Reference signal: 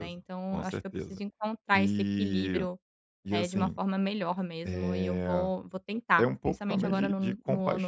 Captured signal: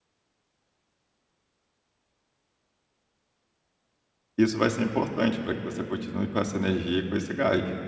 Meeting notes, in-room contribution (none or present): present